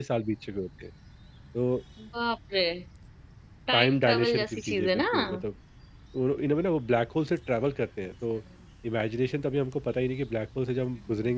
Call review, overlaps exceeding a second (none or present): present